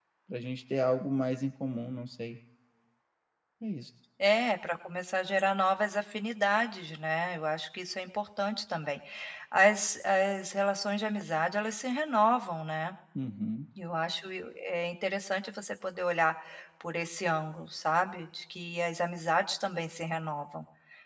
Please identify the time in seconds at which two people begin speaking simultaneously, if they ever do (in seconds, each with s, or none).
none